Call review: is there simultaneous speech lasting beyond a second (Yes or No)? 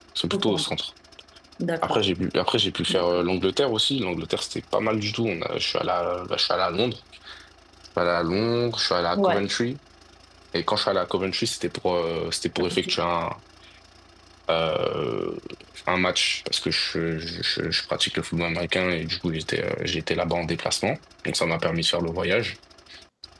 No